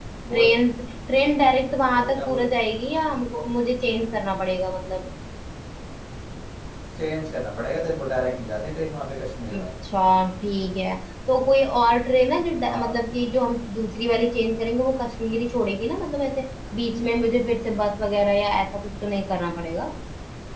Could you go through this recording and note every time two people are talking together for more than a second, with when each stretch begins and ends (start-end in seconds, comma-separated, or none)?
none